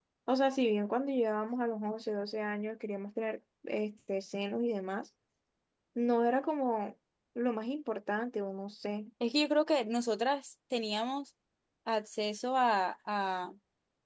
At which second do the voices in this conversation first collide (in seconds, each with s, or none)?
none